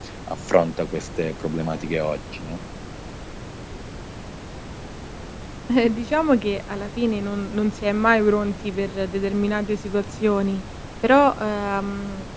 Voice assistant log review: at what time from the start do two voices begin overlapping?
none

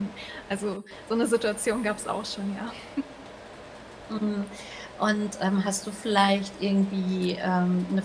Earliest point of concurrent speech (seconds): none

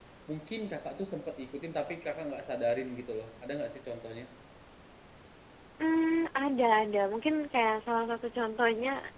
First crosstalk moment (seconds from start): none

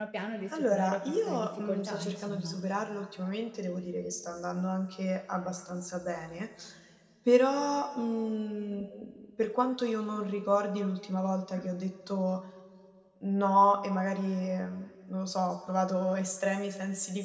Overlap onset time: 0.5 s

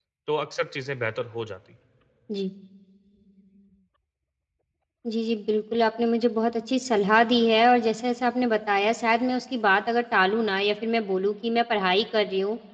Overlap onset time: none

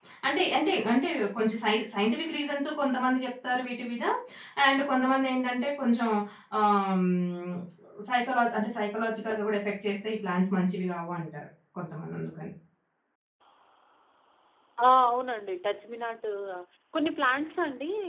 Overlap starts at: none

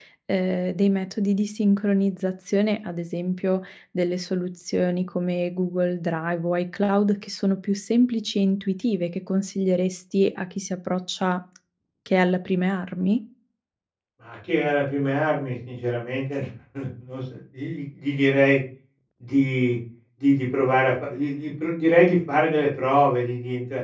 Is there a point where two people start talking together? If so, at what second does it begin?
none

